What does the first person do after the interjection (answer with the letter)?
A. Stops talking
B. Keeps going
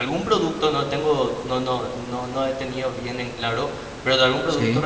B